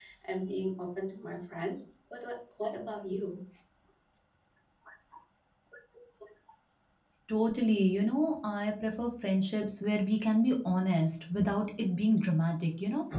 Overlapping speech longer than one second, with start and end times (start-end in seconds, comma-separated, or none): none